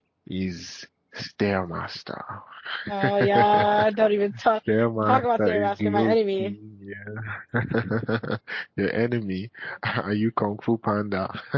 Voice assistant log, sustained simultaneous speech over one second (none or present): present